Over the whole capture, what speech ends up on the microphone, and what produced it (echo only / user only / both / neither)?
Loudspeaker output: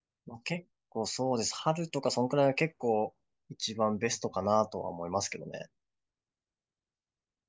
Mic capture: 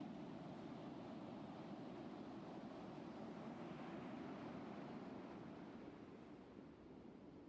neither